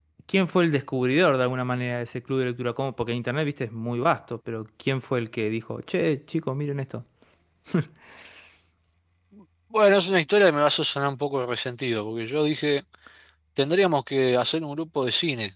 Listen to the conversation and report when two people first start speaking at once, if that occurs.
none

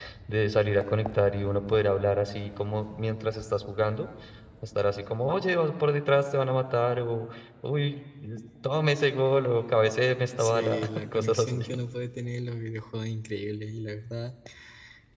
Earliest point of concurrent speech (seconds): 10.4 s

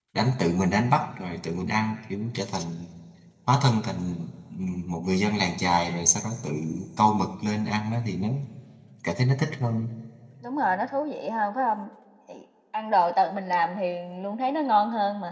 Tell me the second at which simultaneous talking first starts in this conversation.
none

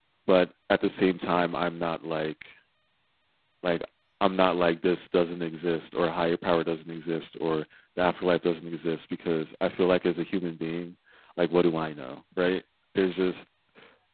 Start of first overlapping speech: none

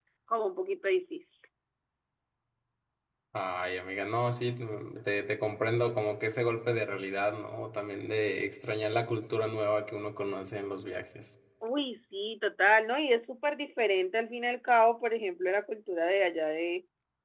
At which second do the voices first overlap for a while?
none

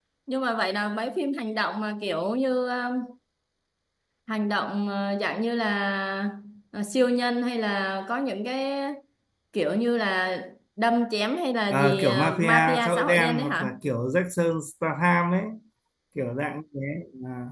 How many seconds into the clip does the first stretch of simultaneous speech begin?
11.7 s

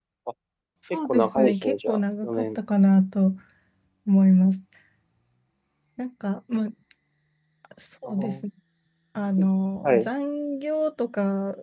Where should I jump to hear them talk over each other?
1.1 s

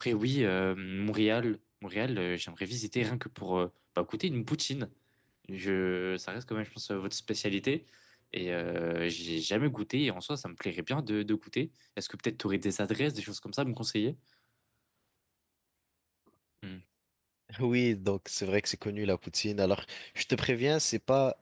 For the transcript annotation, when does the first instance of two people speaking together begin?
none

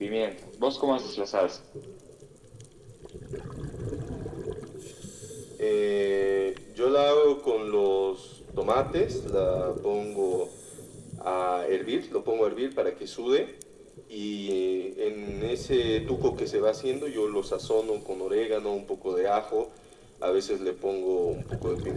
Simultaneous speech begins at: none

